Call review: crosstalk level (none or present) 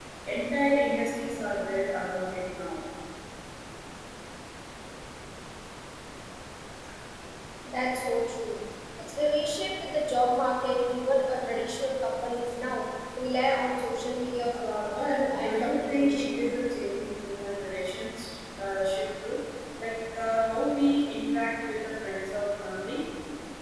present